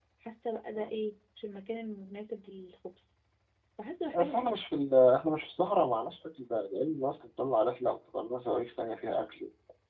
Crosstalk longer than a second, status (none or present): none